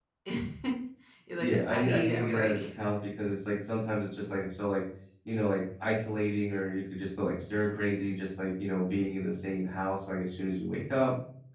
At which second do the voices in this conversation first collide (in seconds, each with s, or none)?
1.4 s